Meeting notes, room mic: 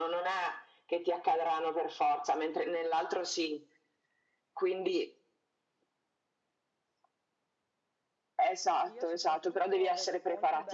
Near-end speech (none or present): present